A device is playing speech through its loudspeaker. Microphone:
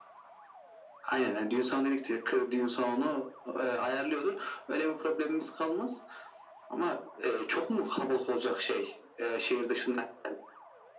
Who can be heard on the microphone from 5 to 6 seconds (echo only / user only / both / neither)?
echo only